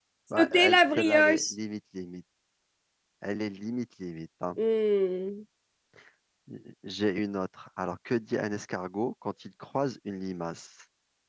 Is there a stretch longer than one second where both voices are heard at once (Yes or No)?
Yes